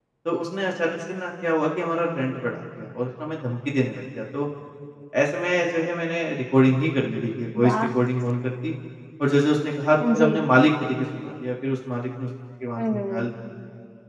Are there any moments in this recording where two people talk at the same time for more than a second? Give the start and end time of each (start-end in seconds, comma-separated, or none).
none